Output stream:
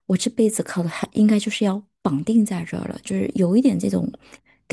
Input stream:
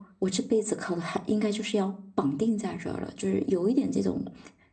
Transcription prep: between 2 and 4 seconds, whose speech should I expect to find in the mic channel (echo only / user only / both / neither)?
echo only